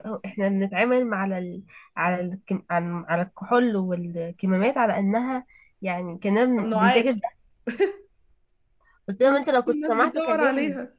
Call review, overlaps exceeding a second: present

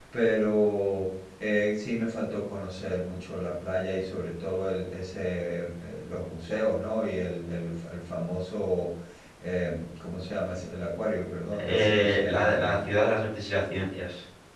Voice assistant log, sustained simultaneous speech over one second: present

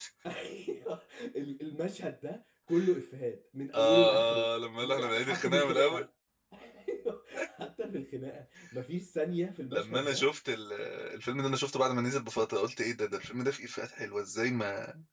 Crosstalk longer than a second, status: present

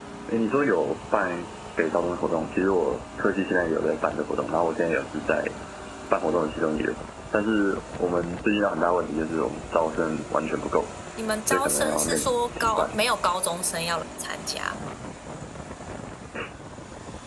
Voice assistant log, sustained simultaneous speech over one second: present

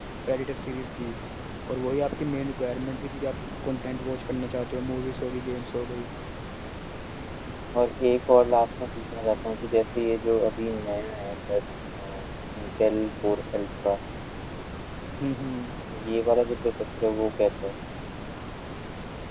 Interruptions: none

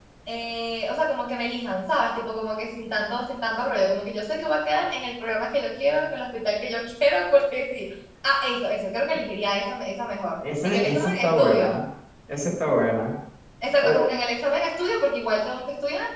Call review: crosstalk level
present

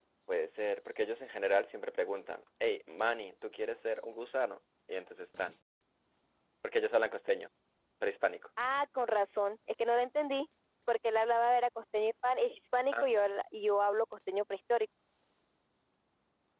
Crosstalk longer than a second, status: none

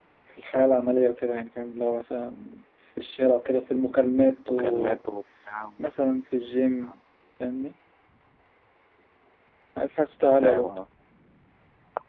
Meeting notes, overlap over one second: none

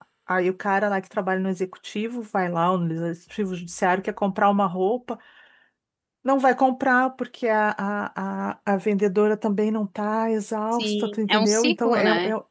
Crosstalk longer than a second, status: present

